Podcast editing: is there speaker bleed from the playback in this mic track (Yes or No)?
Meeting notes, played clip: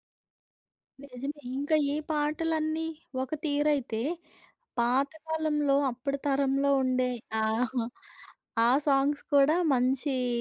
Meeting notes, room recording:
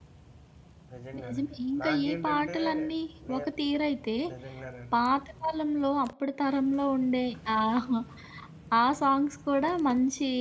Yes